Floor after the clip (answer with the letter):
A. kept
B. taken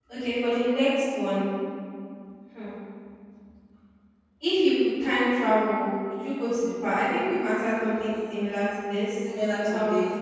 B